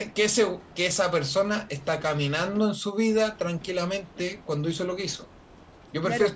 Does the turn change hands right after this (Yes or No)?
Yes